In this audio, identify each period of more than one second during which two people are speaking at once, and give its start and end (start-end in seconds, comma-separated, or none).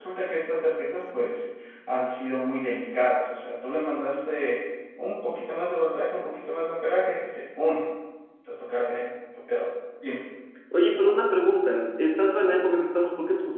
none